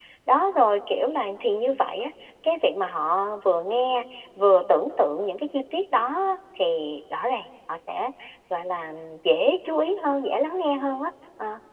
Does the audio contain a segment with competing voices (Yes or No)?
No